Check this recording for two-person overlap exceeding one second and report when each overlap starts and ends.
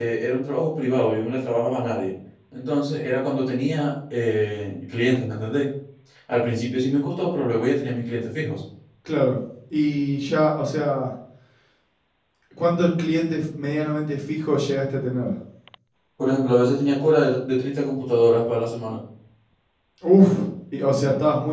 none

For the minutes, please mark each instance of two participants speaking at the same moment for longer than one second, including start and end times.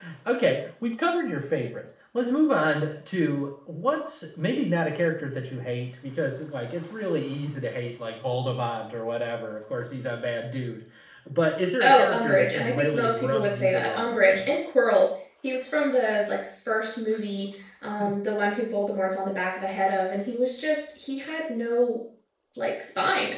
11.8-14.5

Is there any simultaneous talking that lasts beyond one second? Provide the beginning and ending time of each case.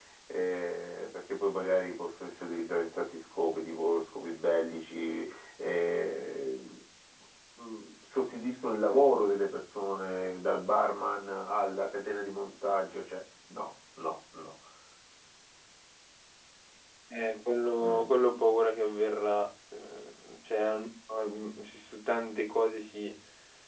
none

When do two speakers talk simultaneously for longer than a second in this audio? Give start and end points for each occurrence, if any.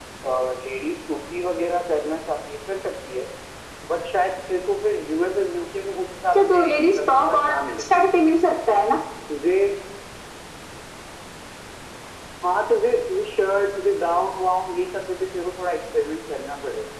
6.3-7.8

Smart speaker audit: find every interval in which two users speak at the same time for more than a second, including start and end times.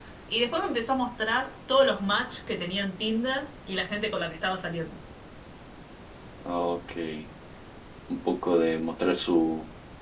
none

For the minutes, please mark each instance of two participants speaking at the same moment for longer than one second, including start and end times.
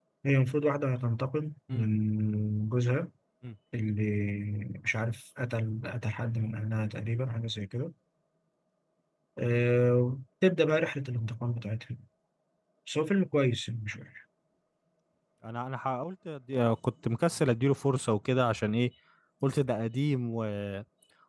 none

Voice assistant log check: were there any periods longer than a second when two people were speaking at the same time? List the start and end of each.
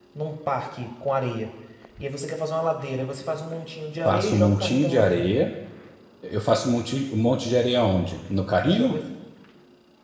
4.0-5.3

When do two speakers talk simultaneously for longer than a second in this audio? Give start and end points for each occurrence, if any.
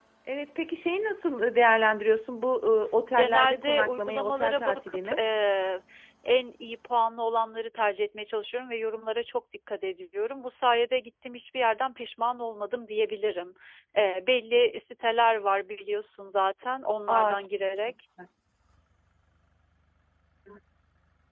3.2-5.2

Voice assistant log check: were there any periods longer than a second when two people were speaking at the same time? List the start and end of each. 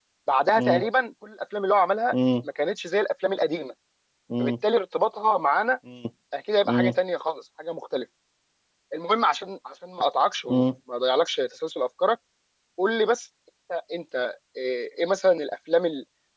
none

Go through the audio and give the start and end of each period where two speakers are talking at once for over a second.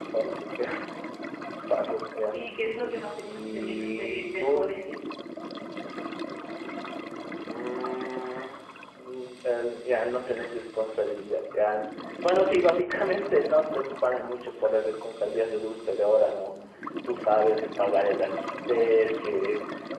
3.2-4.7

